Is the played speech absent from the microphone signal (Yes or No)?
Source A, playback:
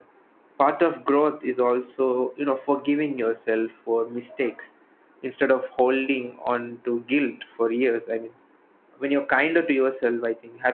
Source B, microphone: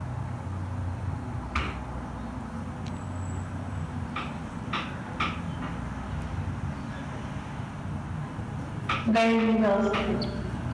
Yes